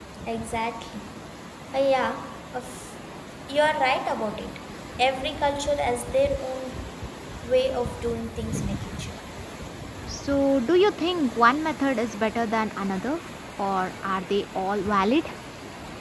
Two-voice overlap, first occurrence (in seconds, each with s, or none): none